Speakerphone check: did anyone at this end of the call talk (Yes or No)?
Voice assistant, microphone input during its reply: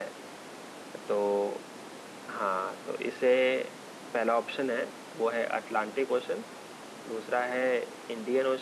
Yes